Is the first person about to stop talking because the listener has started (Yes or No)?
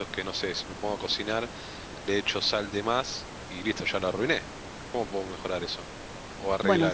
Yes